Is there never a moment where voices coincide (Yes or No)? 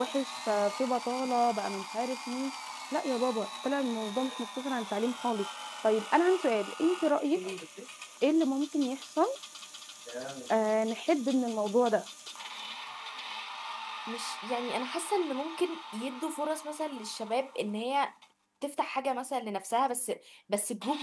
Yes